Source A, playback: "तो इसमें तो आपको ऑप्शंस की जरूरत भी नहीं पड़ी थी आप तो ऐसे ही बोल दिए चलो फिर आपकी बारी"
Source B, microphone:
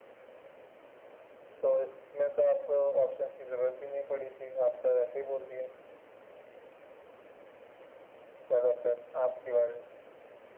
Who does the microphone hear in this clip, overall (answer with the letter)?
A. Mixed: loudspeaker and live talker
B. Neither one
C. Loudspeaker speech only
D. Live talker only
C